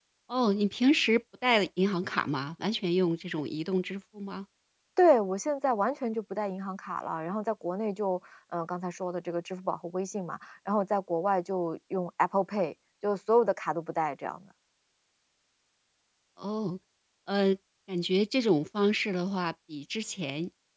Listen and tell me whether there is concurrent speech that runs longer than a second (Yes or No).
No